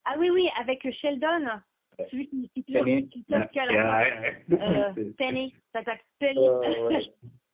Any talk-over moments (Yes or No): Yes